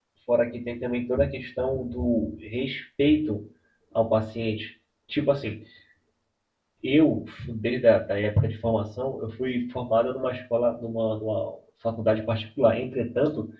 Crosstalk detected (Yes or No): No